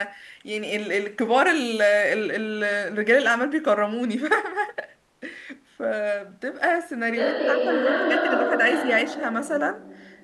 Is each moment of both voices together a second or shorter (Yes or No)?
No